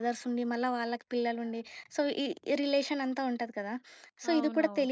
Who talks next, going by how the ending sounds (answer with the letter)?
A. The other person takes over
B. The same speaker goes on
B